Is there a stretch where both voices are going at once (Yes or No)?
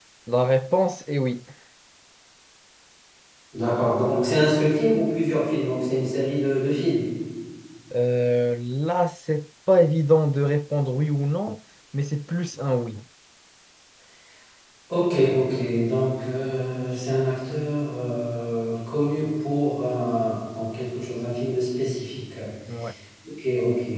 No